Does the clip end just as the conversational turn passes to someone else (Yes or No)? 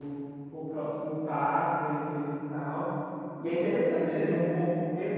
No